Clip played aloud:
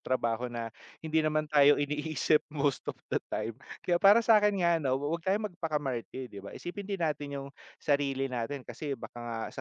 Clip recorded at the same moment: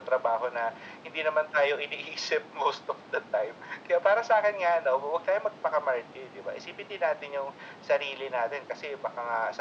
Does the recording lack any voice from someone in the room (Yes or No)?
Yes